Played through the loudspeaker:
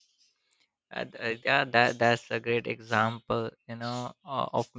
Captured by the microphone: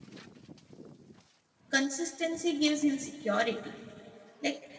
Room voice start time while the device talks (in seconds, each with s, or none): 1.7 s